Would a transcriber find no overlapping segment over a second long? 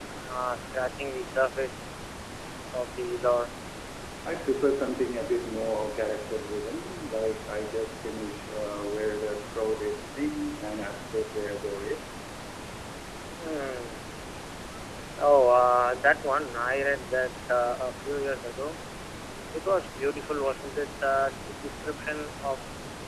Yes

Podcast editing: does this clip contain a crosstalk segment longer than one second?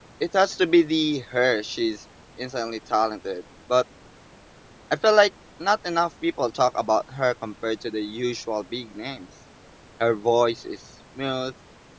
No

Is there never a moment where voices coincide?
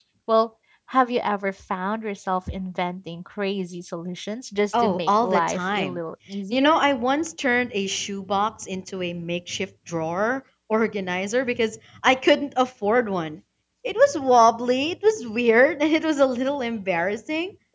No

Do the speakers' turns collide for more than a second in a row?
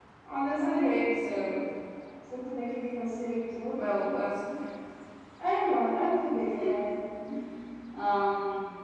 No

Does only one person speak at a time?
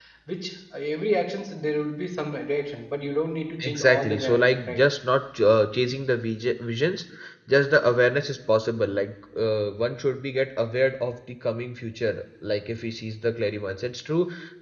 No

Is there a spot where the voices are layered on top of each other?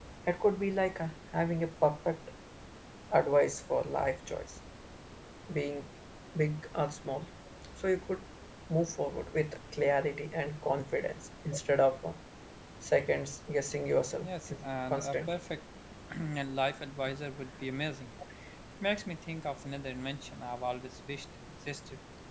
Yes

